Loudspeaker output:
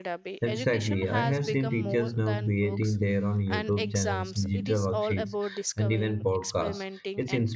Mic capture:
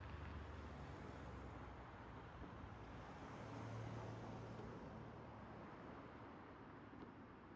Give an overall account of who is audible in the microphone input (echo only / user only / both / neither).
neither